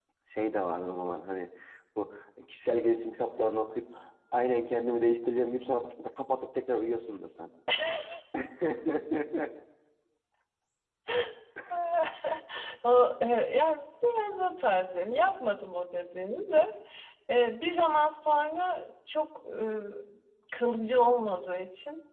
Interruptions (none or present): none